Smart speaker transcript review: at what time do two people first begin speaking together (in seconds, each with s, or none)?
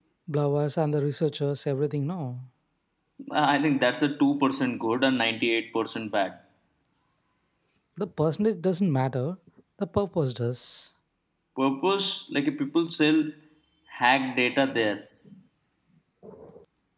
none